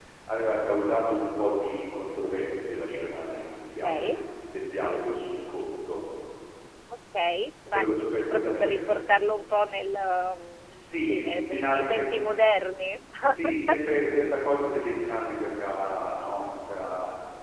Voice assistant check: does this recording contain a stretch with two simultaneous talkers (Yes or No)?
Yes